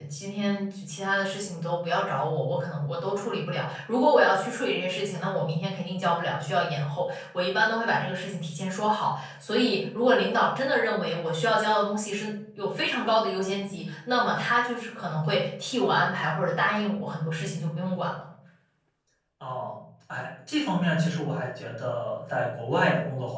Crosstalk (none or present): none